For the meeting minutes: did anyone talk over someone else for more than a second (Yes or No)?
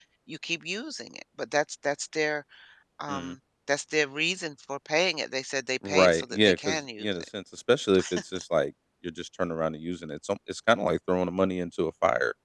Yes